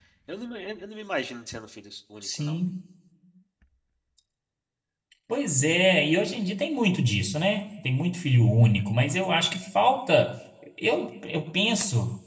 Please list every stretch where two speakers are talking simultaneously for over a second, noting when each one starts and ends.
none

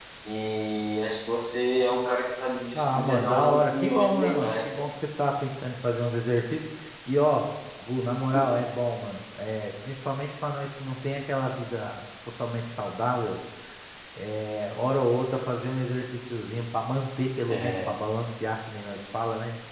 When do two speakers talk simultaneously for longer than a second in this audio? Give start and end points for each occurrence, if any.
2.7-4.8

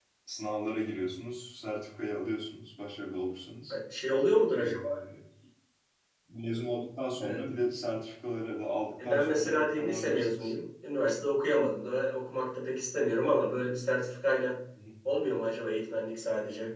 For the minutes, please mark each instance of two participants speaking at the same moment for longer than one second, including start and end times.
9.0-10.5

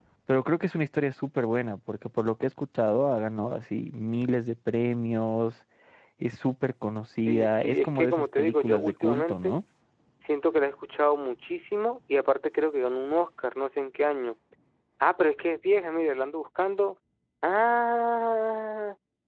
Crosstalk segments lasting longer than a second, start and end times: 7.3-9.6

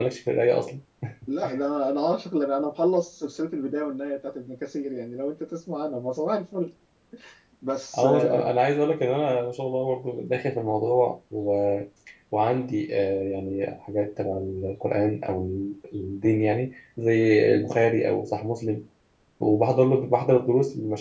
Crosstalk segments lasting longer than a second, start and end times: none

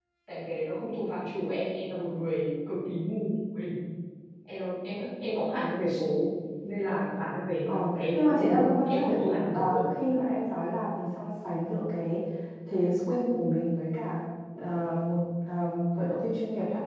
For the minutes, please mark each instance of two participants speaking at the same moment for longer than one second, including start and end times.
7.7-9.8

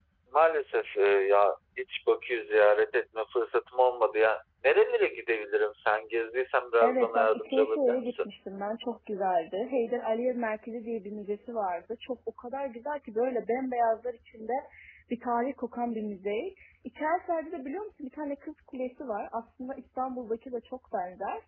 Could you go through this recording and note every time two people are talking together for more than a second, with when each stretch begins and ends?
6.8-8.2

